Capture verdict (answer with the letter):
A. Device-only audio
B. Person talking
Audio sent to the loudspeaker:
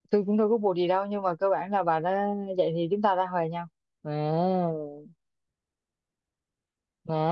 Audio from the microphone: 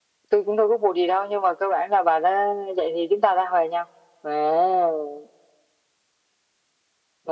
A